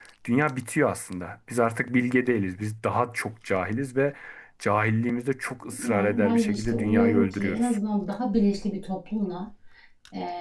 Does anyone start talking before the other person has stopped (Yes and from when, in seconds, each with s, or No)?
Yes, from 5.8 s